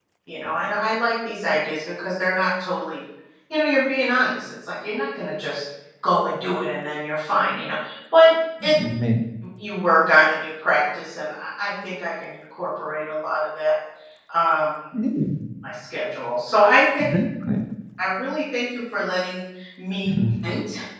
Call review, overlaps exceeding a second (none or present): none